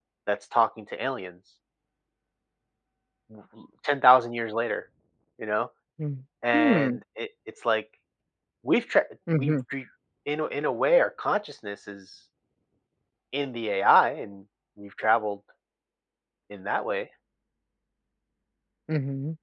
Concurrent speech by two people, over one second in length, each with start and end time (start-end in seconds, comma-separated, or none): none